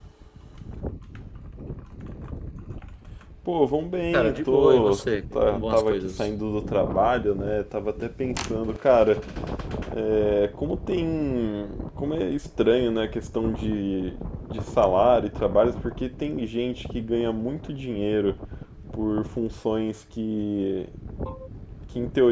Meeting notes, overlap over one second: present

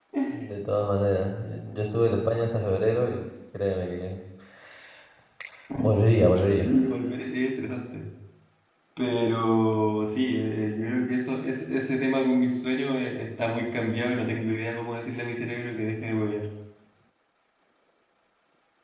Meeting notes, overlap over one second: none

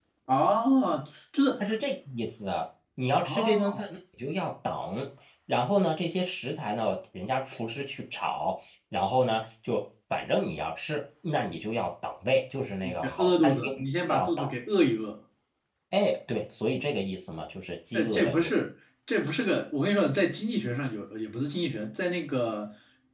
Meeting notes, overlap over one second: present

